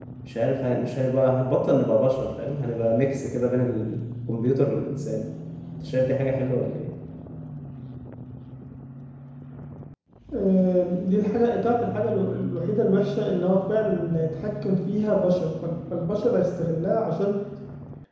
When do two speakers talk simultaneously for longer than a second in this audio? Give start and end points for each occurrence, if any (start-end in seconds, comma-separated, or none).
none